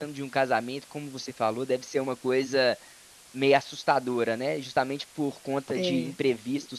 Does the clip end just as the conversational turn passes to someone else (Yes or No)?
No